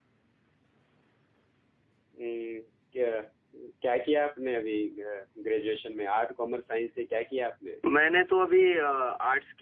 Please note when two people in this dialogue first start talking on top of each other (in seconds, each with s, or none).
none